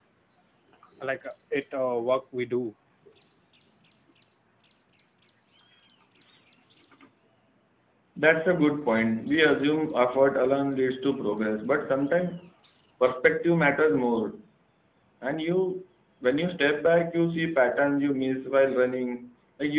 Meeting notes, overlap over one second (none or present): none